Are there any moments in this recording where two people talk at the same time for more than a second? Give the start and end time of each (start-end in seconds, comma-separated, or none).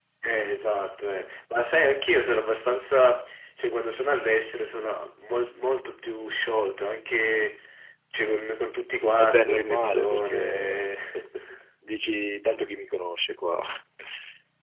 9.2-10.9